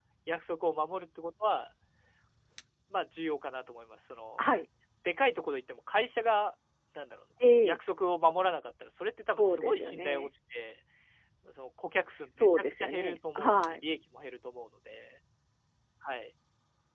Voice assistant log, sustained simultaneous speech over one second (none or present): present